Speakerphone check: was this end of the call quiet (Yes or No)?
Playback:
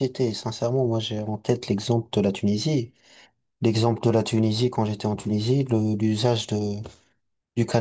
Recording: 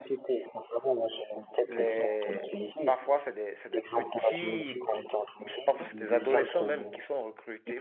No